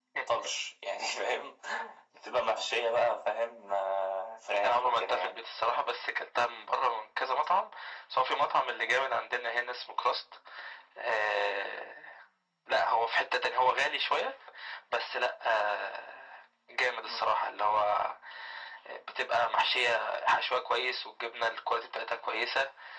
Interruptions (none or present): present